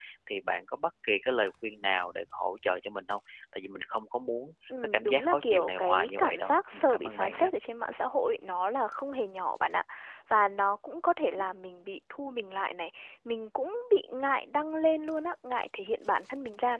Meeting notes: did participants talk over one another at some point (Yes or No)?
Yes